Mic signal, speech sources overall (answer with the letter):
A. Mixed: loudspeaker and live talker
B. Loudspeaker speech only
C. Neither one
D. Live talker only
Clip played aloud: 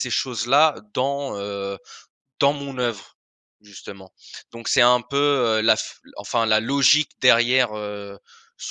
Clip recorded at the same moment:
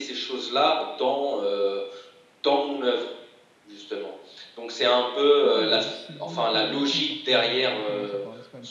A